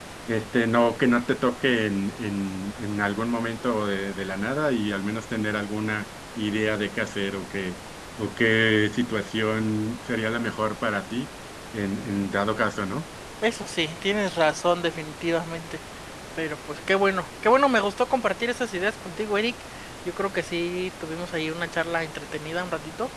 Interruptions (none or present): none